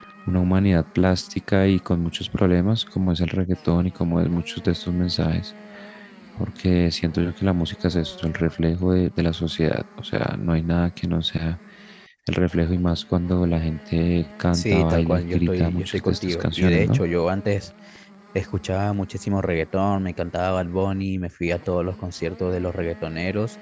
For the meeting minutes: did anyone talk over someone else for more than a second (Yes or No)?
Yes